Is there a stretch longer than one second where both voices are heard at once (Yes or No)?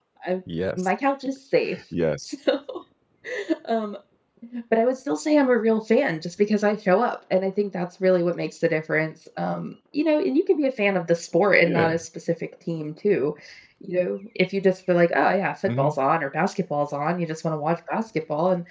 No